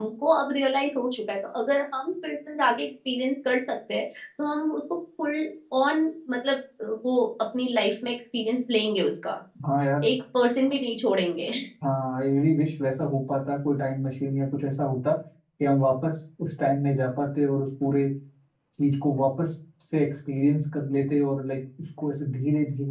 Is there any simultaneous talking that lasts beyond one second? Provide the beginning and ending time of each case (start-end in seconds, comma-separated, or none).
none